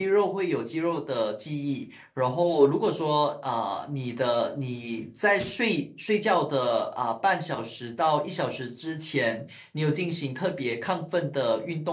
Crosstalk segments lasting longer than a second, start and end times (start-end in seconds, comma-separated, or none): none